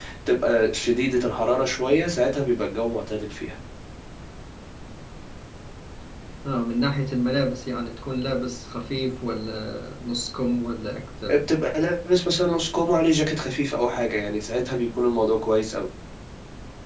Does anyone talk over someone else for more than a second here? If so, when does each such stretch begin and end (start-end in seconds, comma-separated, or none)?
none